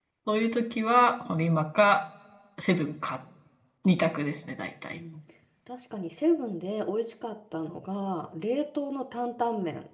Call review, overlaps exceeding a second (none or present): none